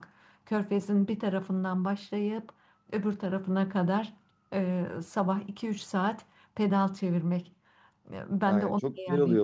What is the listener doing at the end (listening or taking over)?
taking over